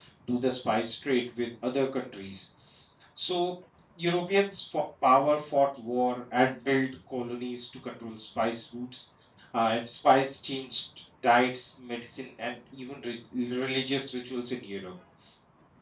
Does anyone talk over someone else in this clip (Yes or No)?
No